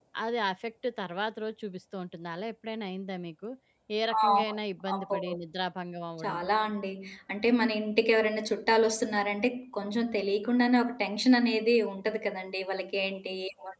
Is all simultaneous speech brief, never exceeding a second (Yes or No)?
Yes